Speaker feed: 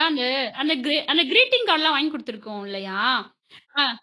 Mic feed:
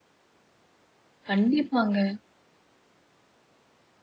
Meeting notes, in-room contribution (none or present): present